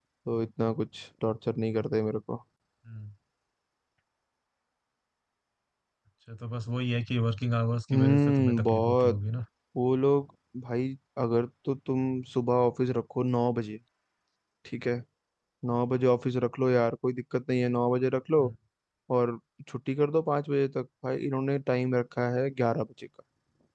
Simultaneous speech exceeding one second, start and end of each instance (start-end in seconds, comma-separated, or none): 7.9-9.2